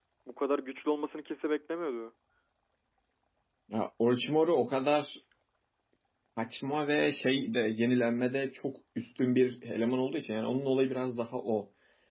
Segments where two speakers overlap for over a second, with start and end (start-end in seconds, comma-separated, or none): none